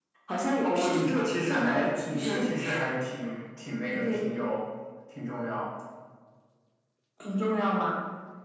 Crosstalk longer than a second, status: present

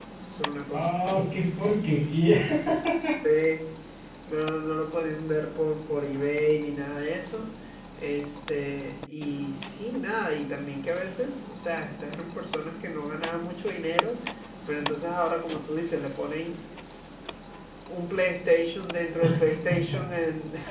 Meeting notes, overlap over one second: none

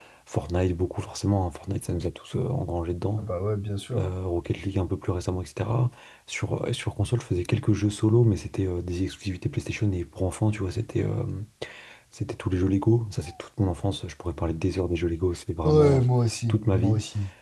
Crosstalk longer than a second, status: none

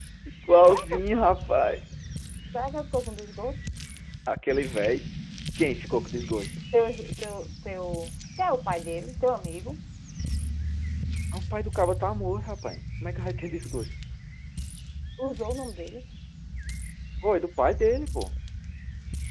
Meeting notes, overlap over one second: none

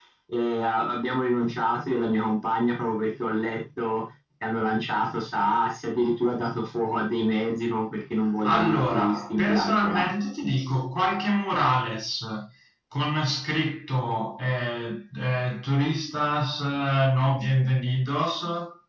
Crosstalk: present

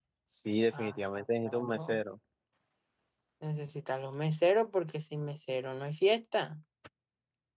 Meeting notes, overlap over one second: present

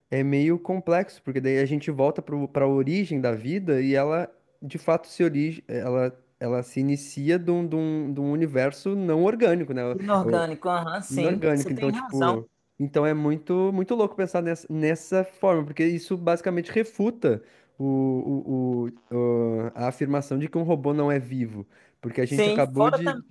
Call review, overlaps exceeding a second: present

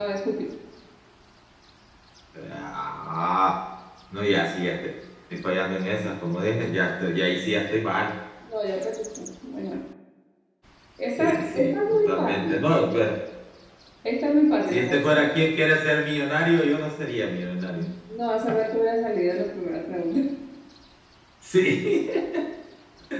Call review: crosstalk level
present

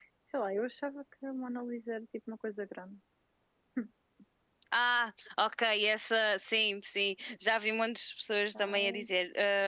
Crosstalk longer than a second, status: none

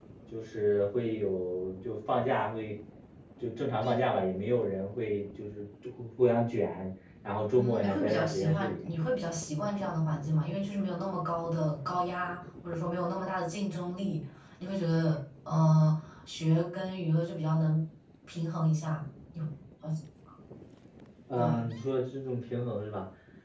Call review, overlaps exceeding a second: present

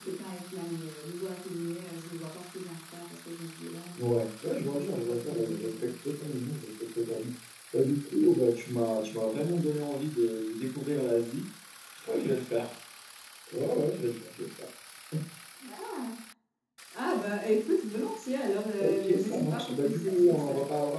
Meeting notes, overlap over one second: present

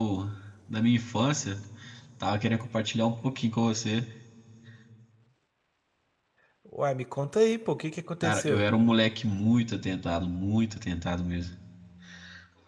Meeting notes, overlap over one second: none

